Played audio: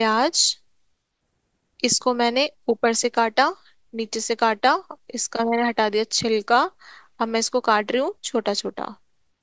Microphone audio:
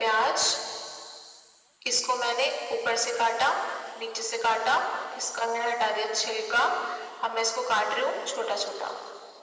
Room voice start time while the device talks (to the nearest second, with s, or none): none